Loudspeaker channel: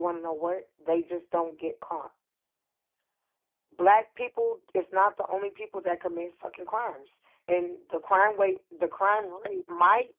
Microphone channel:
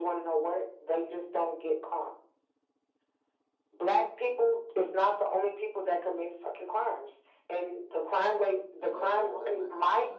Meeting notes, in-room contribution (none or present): present